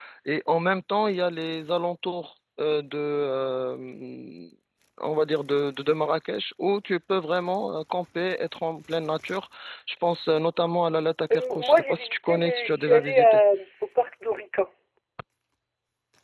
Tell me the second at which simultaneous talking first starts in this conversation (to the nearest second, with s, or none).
11 s